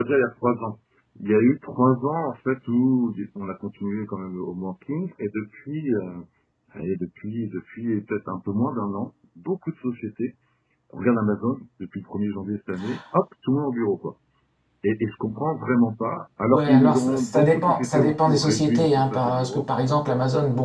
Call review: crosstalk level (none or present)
present